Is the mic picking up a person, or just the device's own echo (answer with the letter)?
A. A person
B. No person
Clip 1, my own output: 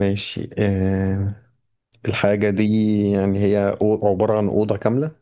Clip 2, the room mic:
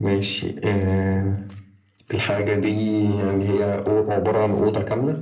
B